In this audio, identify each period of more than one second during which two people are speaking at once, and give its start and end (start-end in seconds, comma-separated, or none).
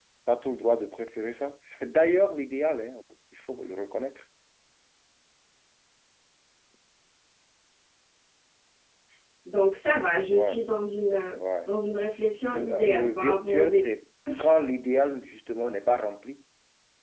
12.5-13.8